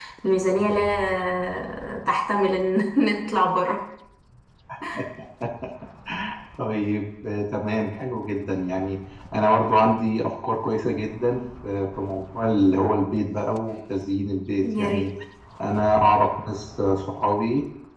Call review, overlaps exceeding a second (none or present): none